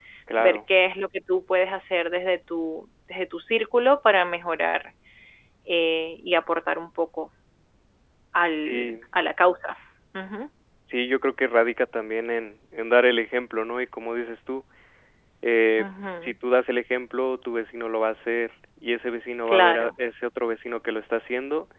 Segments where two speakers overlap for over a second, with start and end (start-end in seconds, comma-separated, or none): none